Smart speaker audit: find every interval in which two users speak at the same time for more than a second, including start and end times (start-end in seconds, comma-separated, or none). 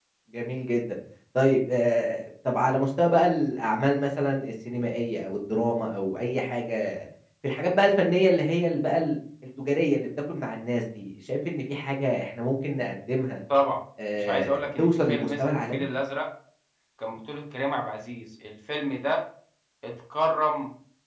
14.2-15.8